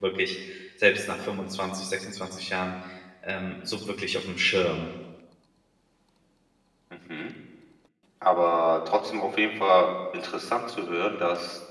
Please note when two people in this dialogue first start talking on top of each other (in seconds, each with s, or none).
none